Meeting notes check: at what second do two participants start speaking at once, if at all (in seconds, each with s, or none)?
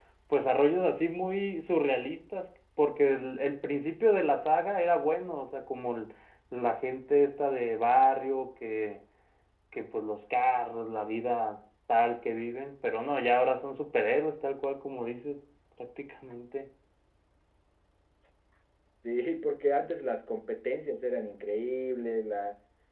none